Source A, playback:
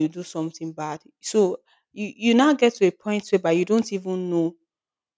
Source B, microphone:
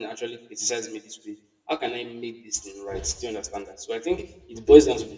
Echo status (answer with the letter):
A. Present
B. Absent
B